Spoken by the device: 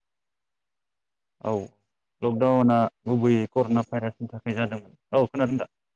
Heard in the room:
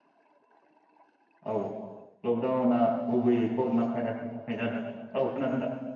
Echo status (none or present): present